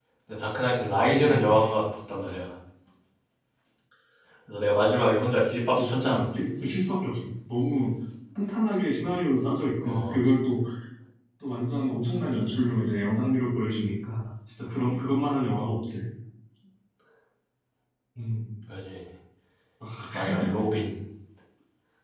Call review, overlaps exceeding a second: none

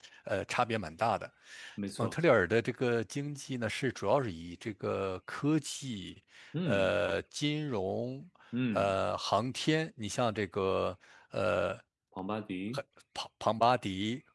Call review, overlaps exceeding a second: none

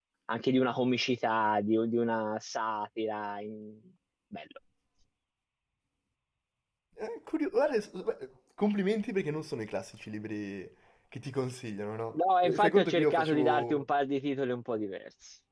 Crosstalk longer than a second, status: present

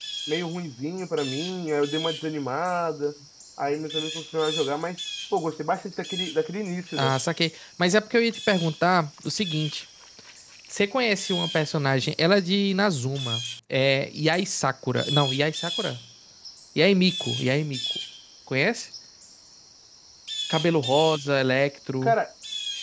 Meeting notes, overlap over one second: none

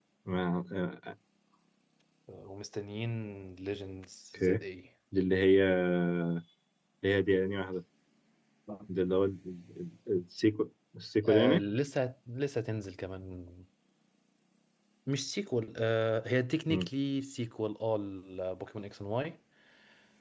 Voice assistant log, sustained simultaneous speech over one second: none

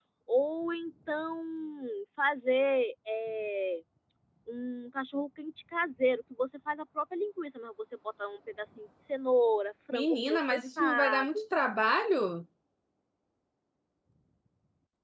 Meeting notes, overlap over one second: present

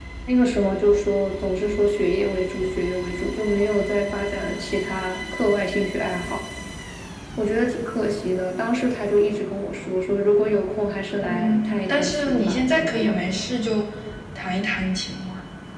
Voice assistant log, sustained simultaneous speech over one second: present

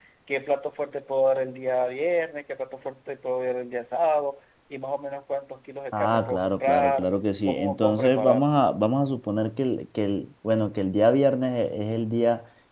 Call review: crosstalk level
present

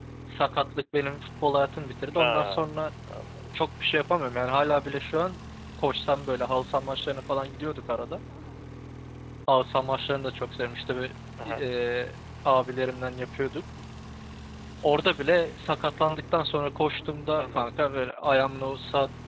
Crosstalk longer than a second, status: none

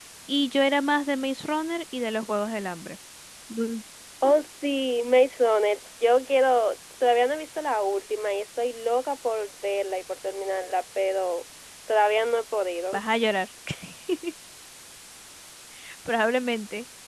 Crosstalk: none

